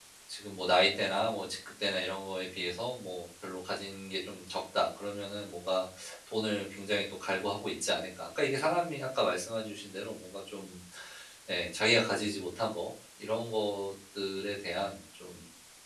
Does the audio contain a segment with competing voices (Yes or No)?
No